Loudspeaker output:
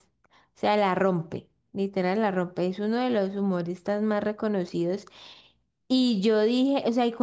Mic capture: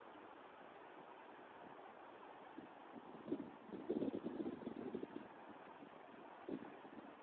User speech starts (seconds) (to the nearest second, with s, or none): none